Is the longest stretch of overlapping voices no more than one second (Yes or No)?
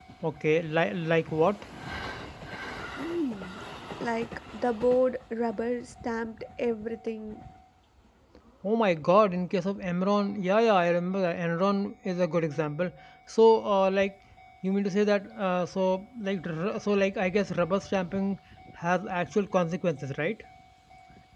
Yes